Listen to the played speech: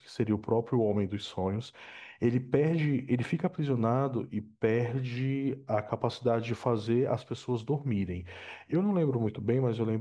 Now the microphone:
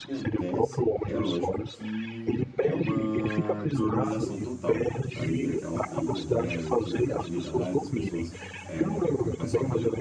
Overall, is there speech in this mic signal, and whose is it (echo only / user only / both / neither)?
both